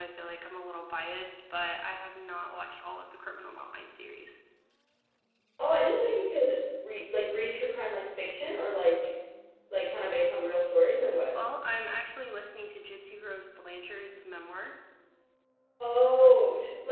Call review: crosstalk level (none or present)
none